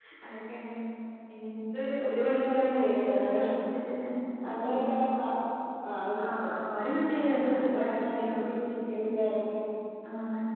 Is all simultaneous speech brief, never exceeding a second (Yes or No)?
No